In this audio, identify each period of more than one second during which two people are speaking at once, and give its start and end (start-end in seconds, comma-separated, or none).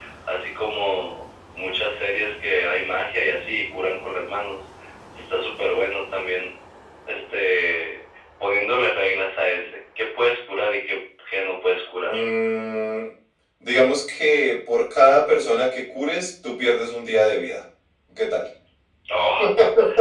none